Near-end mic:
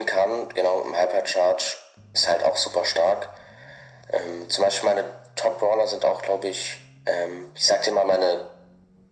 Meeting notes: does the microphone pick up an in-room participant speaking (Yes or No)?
No